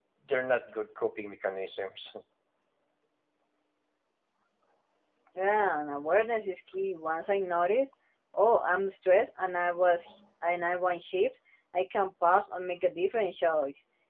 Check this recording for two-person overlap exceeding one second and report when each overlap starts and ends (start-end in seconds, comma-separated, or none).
none